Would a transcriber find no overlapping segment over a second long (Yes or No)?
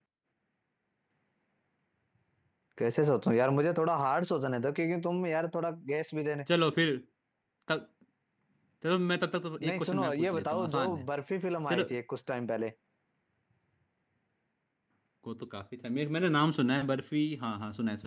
No